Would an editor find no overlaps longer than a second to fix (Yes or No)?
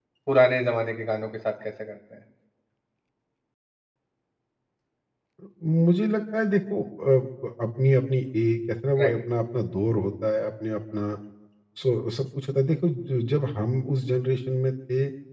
Yes